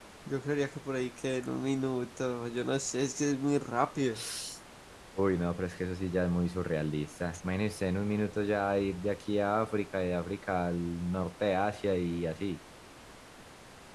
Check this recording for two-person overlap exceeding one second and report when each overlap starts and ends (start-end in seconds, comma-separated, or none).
none